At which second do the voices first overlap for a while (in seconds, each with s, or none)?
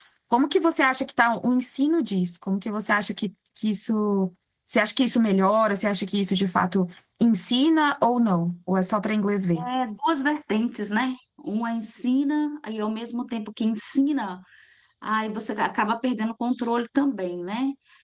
none